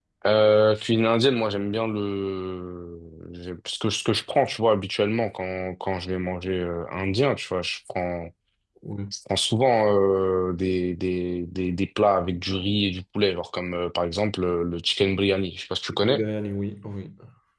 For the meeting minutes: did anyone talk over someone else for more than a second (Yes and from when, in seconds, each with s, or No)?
No